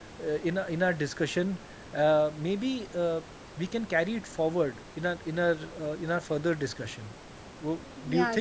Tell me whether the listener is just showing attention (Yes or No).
No